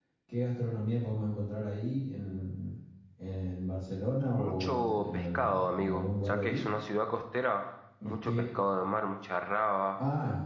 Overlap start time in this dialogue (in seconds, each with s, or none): 4.4 s